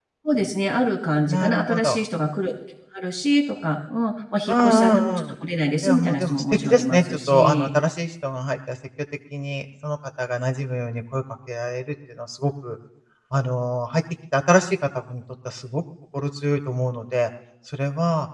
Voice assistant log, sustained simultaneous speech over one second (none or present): present